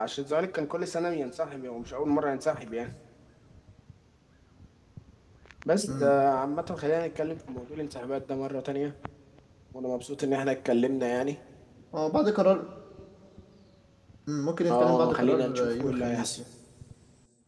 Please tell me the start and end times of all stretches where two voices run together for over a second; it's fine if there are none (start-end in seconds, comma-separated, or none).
14.7-16.4